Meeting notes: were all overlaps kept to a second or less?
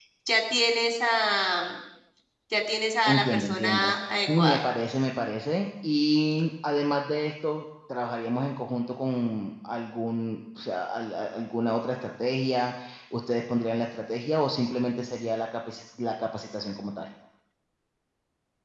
No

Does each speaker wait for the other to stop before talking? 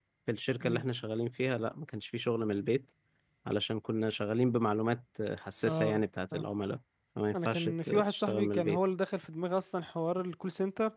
No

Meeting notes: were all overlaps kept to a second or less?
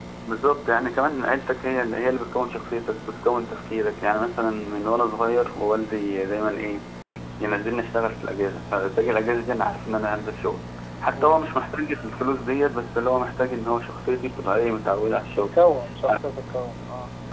Yes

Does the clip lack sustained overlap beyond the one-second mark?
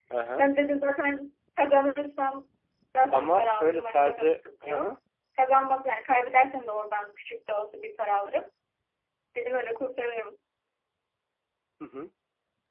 No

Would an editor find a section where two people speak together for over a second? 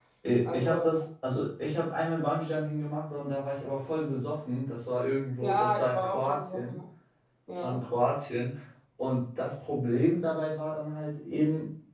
Yes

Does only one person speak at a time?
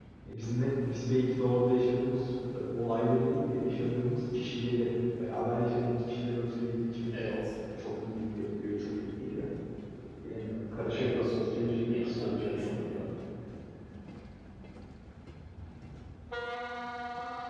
No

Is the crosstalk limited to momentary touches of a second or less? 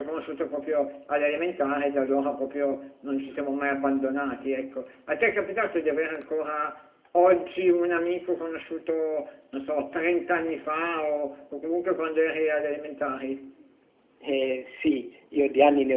Yes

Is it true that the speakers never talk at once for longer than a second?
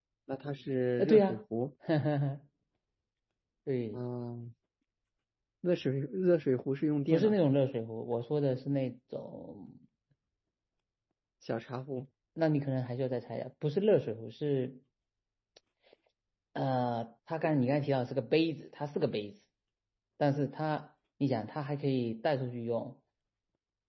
Yes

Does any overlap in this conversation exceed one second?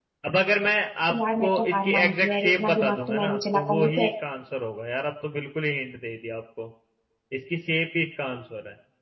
Yes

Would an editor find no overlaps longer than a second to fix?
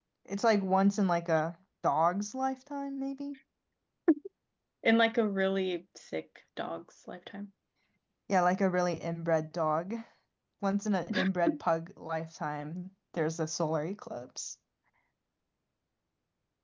Yes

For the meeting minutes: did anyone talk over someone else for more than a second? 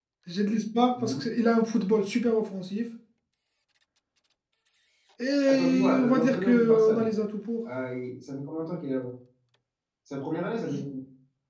Yes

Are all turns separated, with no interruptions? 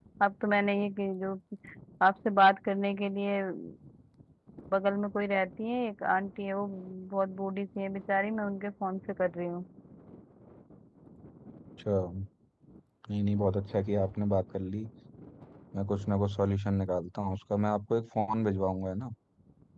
Yes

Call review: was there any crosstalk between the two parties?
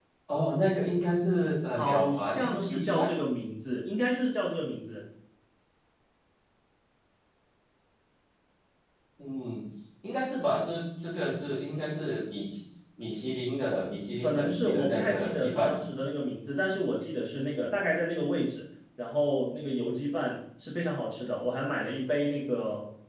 Yes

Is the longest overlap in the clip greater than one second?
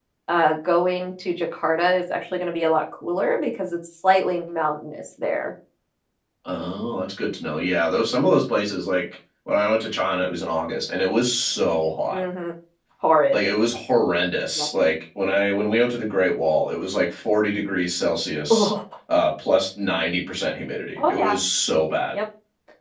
No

